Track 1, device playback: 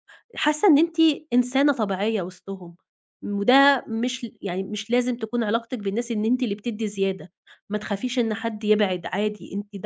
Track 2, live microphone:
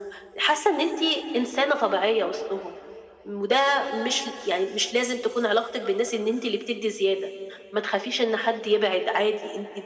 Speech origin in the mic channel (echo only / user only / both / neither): echo only